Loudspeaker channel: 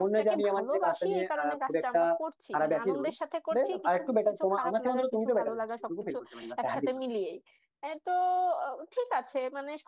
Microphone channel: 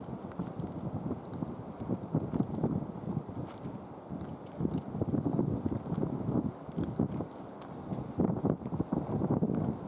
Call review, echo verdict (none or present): none